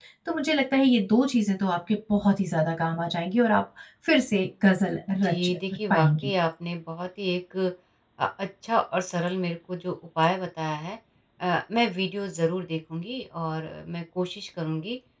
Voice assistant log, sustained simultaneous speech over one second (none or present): none